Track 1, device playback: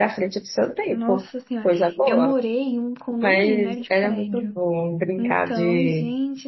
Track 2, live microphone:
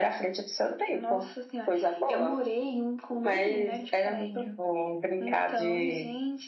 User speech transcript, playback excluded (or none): none